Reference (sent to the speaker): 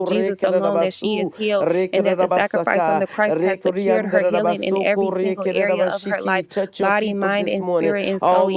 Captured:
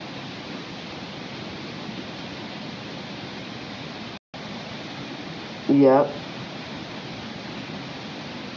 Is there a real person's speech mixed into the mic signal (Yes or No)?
Yes